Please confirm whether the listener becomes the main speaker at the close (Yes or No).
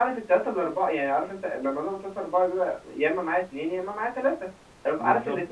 No